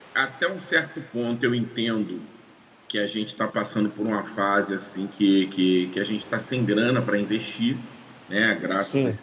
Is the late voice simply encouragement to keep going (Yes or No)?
Yes